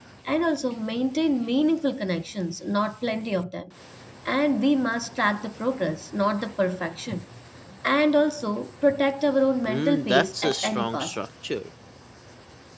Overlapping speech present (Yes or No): Yes